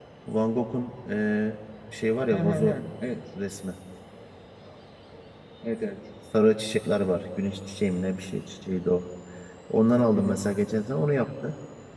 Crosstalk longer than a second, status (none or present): none